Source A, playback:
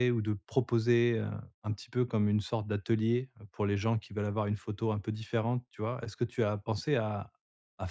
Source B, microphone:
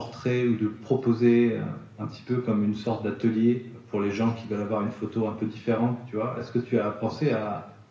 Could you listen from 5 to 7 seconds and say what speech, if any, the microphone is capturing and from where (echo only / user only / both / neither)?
echo only